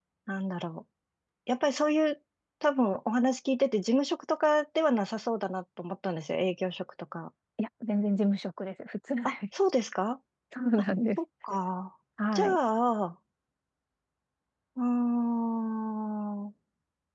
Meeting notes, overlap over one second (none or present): none